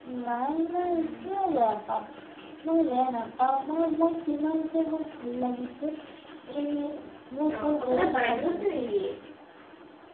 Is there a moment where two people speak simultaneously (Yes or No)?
Yes